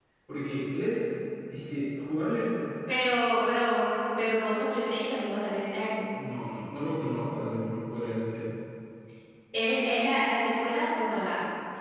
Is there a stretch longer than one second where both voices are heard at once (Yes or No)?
No